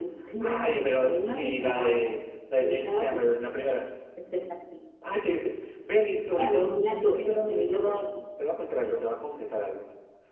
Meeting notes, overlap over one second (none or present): present